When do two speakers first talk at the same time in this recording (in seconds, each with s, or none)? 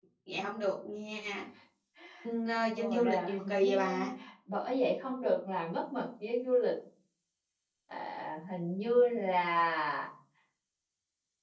2.8 s